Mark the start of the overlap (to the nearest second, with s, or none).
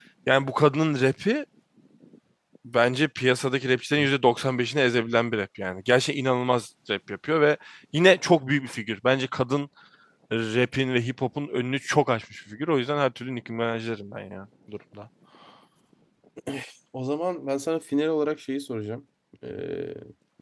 none